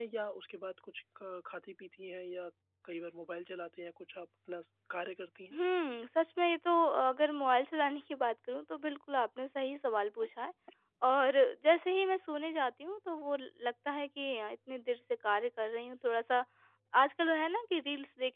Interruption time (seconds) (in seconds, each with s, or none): none